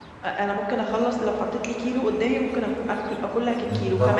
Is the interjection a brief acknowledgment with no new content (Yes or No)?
Yes